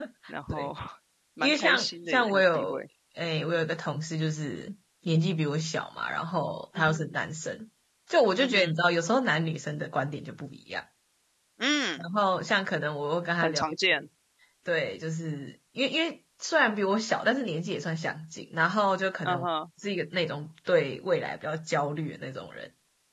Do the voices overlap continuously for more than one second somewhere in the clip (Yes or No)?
Yes